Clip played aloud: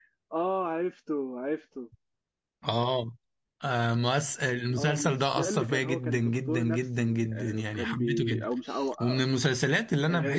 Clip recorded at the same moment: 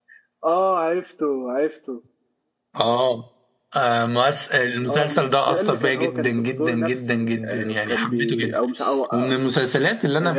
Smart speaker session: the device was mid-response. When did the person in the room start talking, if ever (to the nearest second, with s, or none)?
none